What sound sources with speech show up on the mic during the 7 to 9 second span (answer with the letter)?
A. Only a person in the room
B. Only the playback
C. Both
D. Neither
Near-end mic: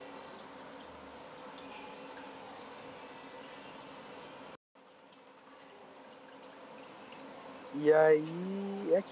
A